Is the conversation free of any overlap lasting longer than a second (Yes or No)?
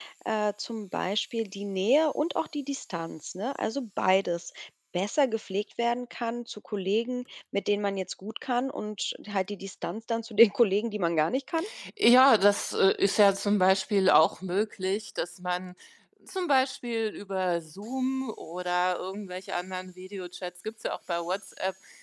Yes